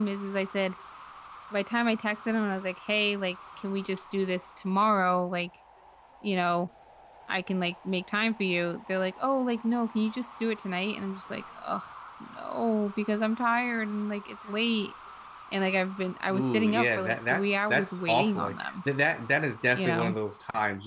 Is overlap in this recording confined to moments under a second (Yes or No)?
No